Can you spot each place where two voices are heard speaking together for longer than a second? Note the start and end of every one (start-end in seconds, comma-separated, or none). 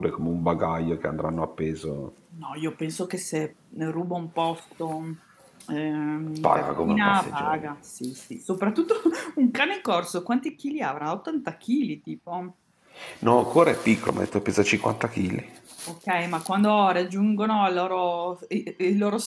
6.4-7.6